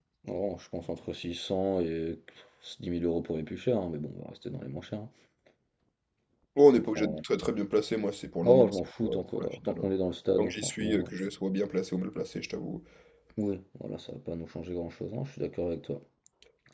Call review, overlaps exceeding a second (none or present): present